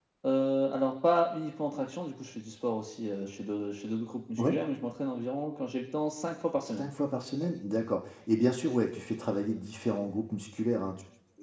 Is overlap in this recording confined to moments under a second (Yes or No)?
Yes